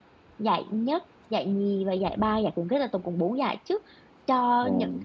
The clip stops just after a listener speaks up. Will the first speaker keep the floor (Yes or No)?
Yes